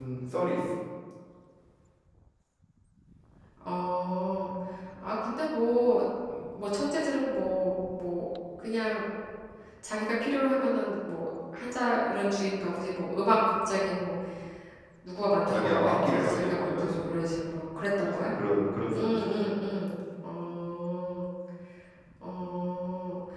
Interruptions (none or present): present